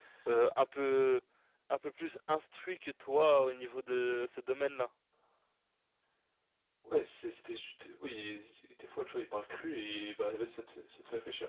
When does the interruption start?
none

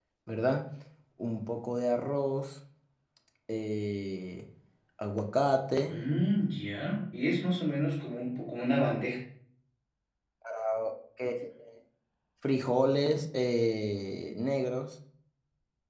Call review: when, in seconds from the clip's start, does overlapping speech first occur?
none

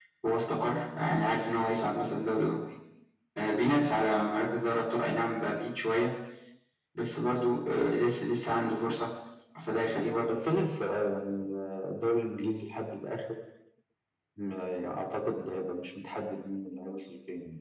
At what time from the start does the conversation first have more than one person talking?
none

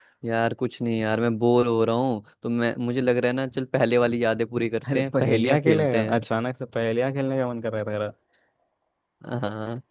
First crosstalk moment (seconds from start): 4.8 s

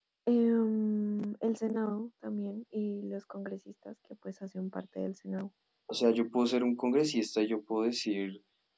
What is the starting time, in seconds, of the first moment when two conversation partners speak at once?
none

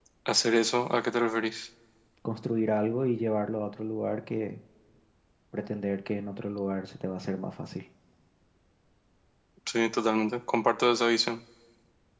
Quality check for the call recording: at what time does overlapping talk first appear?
none

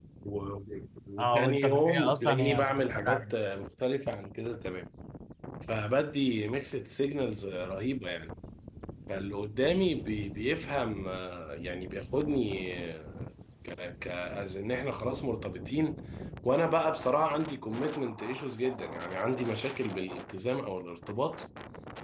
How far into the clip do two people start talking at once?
1.2 s

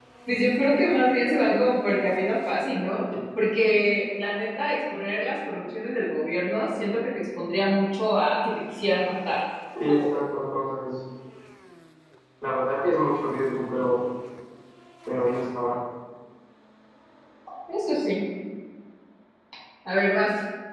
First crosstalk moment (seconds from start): none

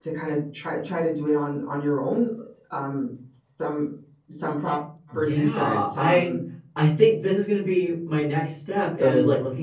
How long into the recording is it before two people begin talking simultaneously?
5.1 s

